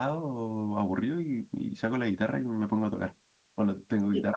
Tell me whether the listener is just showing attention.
Yes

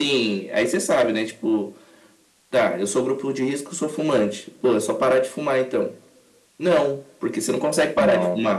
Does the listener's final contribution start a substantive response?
No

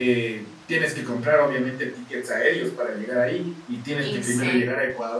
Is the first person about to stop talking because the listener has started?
No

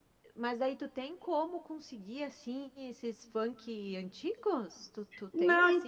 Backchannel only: No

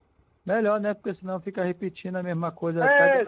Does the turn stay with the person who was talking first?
No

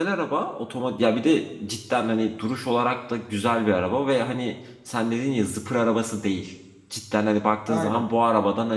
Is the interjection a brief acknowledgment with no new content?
Yes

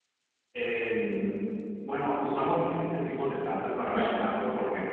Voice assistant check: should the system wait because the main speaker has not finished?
Yes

